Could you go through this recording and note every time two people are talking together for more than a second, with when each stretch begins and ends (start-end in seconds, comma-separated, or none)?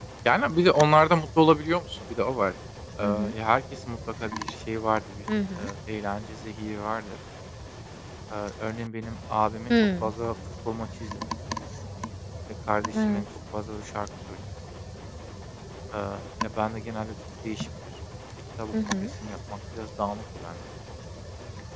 none